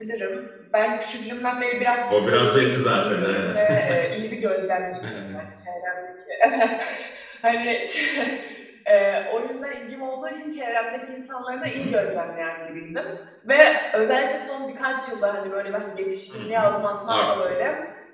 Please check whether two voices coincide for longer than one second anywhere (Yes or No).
Yes